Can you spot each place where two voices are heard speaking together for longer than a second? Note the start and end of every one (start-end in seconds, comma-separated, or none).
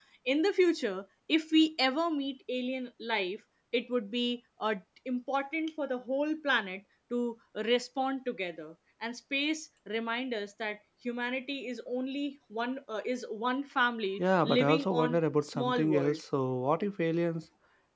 14.2-16.2